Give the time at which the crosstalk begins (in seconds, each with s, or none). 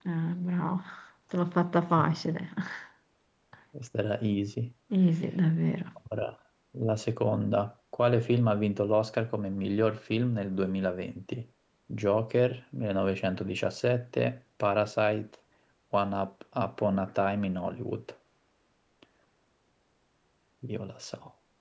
none